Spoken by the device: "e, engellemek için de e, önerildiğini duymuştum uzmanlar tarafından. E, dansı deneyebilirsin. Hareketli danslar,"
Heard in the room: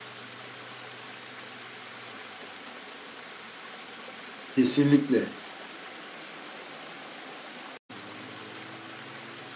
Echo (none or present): none